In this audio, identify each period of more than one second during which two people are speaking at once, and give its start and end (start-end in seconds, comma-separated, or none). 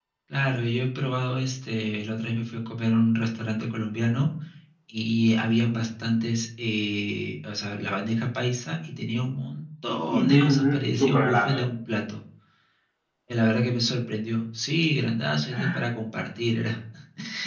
10.1-11.6